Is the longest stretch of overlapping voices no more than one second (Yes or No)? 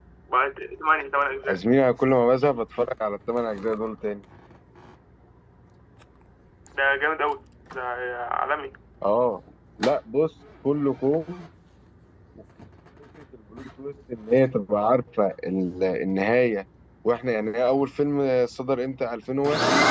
Yes